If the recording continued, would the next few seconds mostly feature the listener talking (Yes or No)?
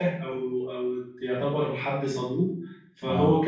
No